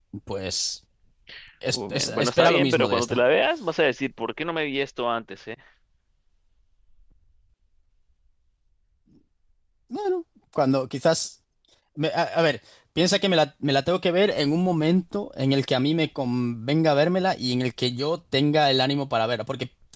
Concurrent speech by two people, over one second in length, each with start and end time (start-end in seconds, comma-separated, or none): 1.7-3.2